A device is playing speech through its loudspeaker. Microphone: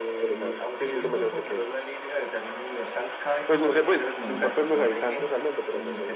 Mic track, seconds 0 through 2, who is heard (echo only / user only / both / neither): echo only